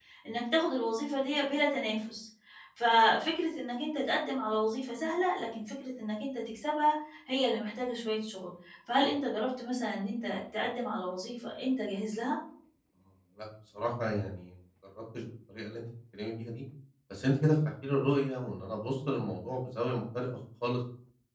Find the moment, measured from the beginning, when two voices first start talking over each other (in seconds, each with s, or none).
none